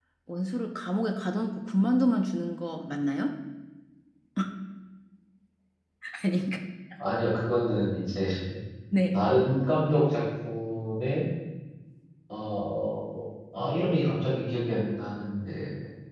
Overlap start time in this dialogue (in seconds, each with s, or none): none